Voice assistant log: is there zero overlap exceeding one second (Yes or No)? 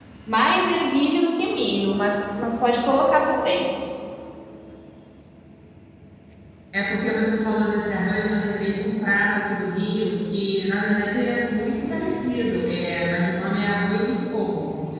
Yes